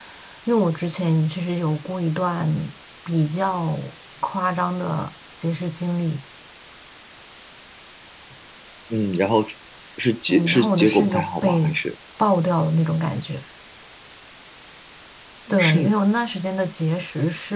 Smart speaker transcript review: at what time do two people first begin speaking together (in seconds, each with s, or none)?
10.3 s